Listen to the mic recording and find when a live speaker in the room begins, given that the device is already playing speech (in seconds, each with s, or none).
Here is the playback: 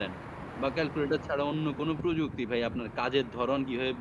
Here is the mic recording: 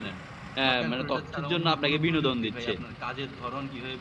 0.6 s